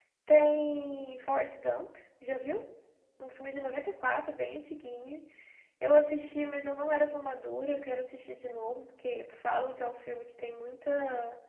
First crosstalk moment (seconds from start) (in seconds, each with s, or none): none